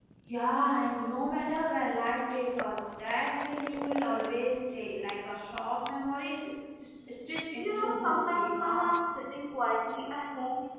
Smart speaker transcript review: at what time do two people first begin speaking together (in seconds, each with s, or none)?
7.6 s